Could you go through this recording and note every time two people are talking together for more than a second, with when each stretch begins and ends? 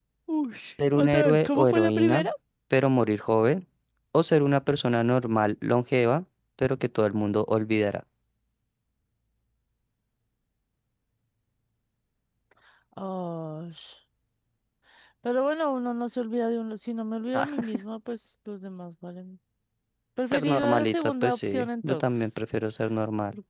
0.9-2.3, 20.3-22.3

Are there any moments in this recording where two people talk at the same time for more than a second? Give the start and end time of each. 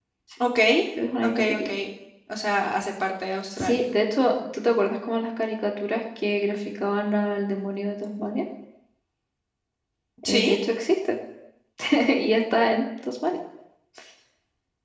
none

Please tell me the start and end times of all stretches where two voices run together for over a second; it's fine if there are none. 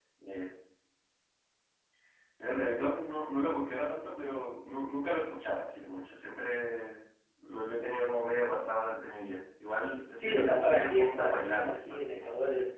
10.1-12.3

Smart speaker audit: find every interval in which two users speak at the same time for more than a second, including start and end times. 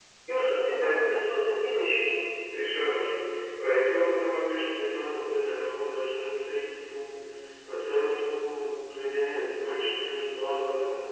none

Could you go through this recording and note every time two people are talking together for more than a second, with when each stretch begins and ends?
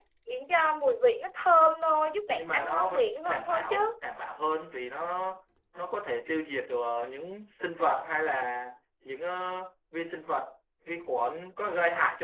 2.4-3.8

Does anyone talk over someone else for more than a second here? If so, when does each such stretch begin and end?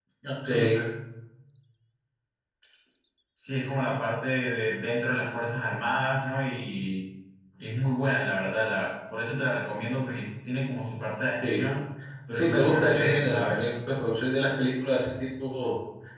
12.3-13.7

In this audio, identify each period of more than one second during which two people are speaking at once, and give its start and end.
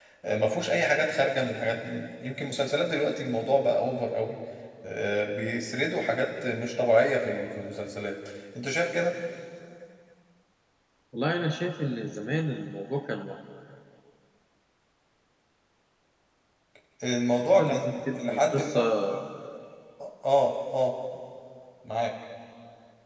17.6-18.8

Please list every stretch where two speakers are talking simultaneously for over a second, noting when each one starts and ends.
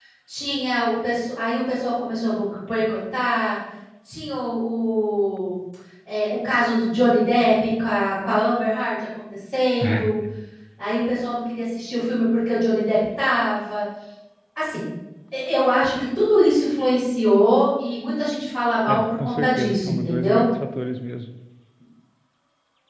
18.9-20.4

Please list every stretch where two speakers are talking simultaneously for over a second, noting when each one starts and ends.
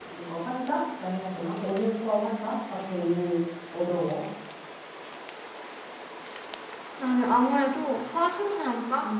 none

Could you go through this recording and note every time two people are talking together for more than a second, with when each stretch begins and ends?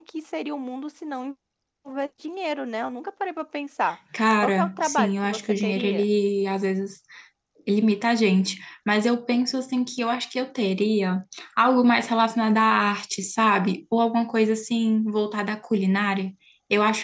4.4-6.1

